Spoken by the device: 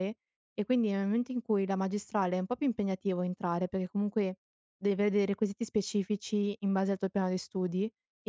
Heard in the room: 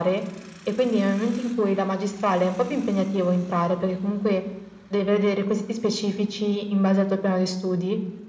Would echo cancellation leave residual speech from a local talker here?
No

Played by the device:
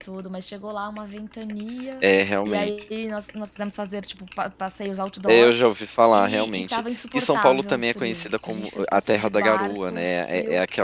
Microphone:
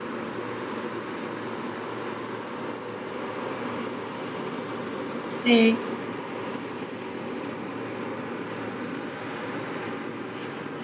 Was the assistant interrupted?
Yes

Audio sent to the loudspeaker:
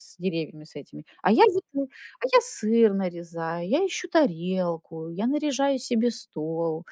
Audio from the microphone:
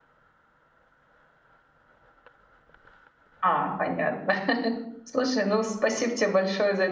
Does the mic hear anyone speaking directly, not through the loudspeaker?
Yes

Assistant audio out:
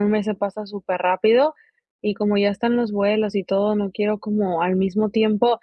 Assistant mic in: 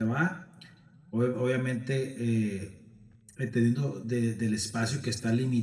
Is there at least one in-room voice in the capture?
Yes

